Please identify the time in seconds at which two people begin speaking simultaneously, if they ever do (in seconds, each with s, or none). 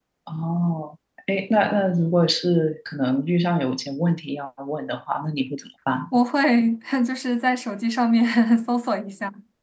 none